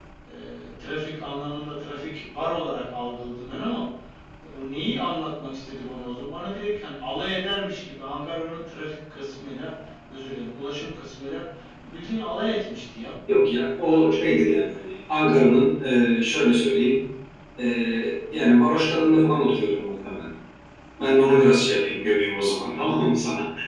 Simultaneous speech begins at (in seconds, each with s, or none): none